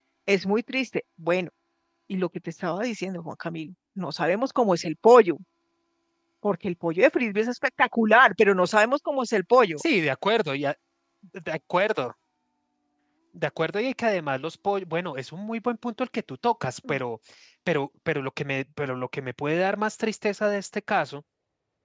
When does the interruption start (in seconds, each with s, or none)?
none